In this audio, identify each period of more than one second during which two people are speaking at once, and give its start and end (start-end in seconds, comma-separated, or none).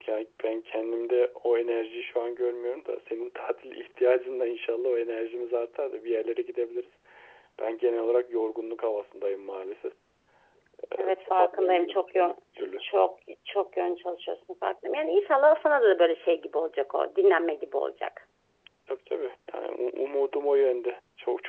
11.0-12.3